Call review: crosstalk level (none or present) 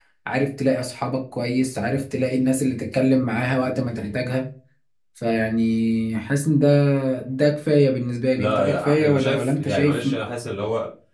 present